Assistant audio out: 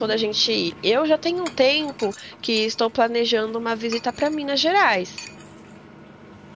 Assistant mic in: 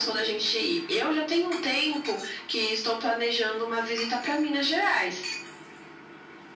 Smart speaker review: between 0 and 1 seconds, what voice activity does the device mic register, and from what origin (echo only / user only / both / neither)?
echo only